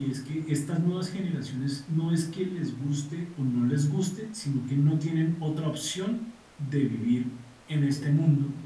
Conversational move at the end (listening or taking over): listening